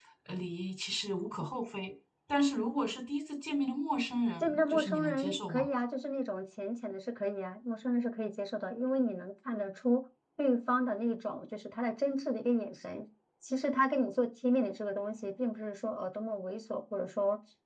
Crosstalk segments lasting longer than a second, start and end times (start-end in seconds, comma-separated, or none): 4.4-5.7